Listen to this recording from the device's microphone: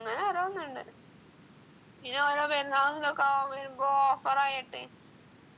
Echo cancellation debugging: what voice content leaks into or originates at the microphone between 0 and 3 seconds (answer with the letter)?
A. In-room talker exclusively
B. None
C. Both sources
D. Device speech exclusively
D